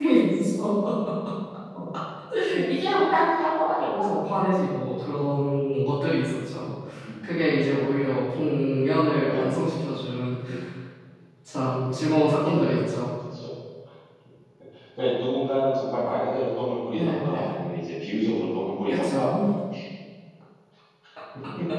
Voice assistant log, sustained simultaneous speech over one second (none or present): none